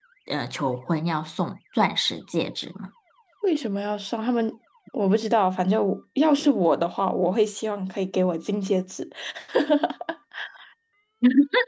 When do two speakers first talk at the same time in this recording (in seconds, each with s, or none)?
none